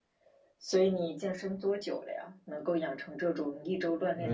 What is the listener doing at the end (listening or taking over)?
taking over